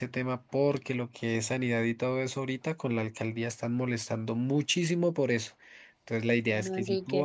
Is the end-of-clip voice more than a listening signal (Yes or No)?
No